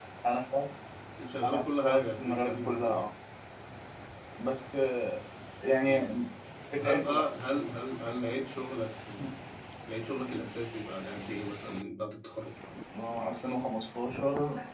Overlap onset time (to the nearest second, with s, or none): 1 s